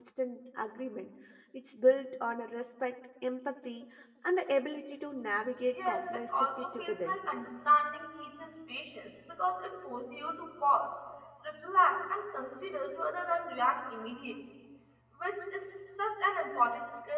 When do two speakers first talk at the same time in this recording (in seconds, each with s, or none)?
5.7 s